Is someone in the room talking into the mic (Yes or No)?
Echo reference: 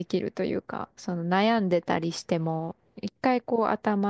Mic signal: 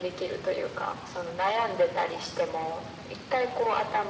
No